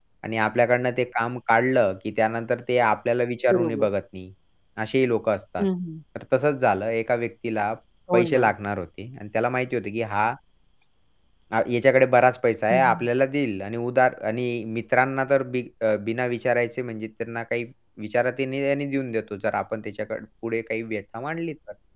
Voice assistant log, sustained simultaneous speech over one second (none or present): none